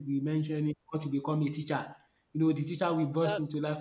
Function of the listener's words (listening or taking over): listening